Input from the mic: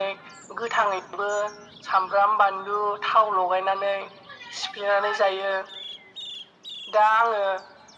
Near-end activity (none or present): none